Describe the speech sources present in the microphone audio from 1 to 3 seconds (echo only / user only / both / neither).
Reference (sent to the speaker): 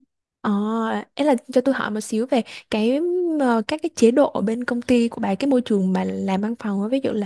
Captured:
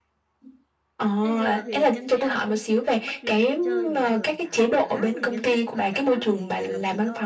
both